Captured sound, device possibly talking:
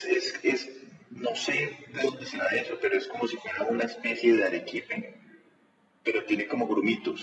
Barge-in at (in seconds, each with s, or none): none